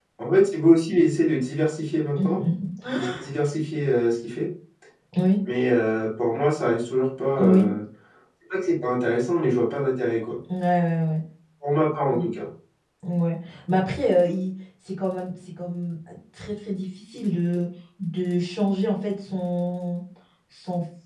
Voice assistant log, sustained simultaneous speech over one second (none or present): none